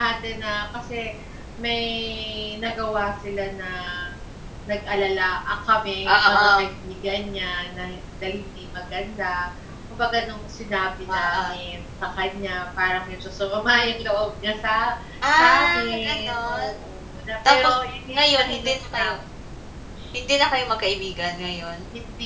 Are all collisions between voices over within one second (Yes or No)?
No